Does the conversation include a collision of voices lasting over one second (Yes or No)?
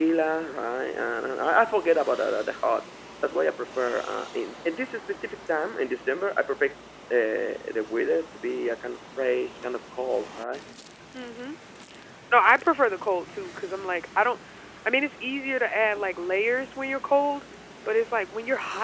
No